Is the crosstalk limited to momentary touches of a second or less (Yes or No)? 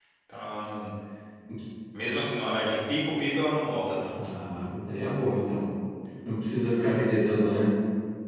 Yes